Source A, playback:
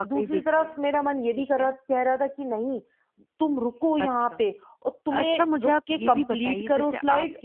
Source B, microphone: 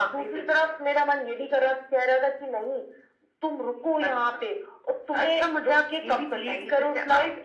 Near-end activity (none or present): none